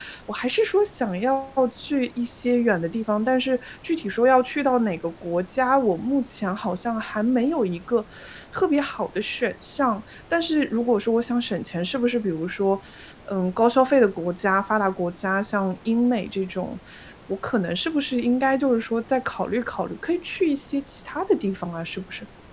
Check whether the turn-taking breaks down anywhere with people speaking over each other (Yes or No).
No